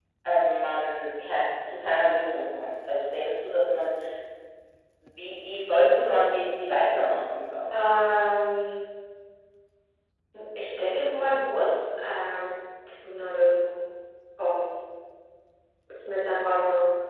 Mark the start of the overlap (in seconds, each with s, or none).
none